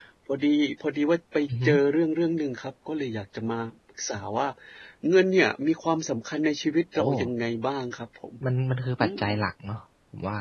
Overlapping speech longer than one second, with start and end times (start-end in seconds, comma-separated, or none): none